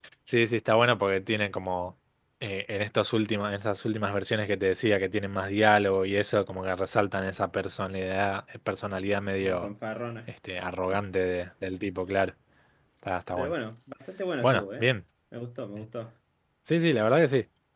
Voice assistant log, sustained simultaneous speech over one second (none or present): none